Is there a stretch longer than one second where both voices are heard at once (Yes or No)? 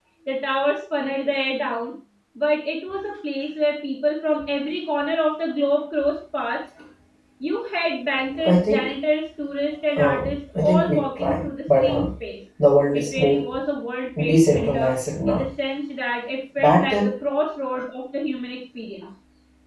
Yes